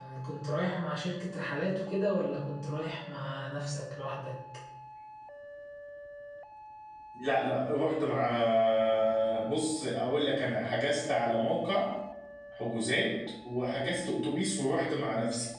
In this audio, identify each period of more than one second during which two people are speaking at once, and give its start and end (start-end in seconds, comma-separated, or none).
none